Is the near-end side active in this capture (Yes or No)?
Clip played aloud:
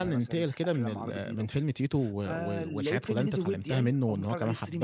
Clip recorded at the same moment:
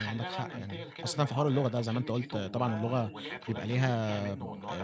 Yes